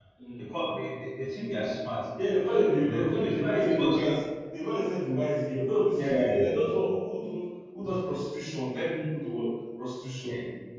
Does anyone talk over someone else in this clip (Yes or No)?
Yes